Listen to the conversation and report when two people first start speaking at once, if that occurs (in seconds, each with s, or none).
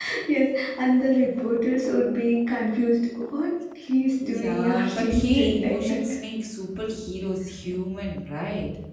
4.2 s